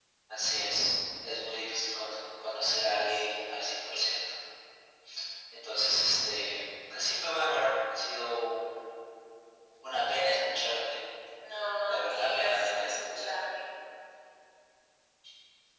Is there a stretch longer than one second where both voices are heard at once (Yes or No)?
Yes